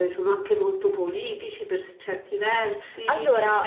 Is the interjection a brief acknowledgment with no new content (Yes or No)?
Yes